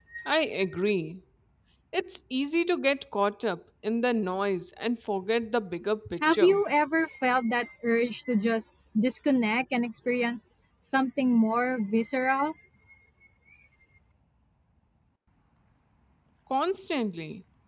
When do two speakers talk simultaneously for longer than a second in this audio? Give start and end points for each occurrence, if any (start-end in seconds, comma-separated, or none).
none